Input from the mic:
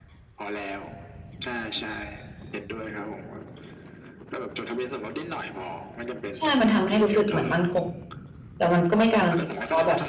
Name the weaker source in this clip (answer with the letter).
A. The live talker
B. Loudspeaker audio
B